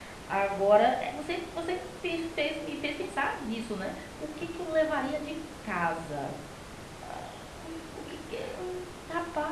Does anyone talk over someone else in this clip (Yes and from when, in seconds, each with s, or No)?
No